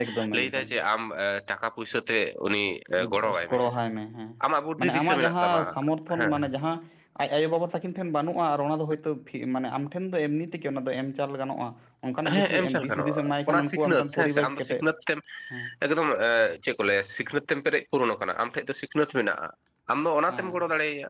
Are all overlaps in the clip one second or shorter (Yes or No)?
No